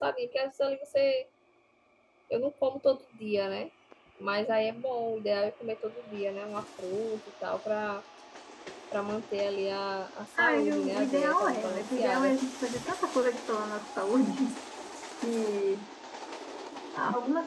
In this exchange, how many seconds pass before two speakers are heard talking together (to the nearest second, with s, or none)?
10 s